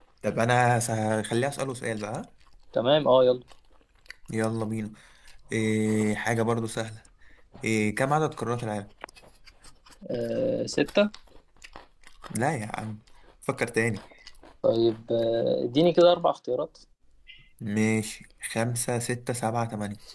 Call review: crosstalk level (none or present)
none